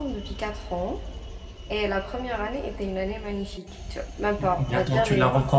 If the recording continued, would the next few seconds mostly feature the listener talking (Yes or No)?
Yes